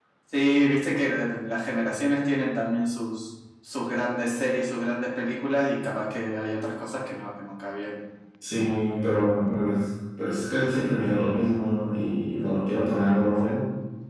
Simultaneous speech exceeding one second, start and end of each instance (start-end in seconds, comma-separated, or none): none